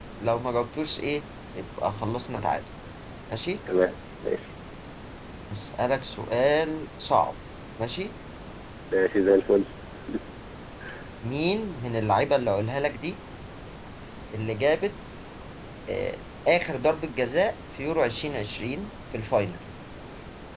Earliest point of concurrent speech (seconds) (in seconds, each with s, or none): none